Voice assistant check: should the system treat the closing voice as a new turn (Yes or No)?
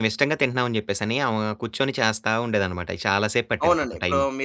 Yes